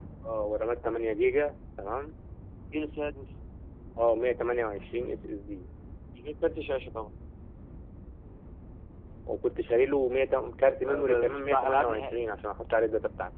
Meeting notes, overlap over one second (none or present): present